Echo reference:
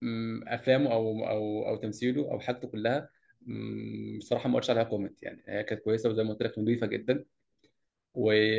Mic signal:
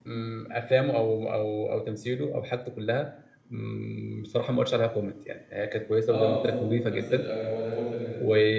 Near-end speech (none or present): present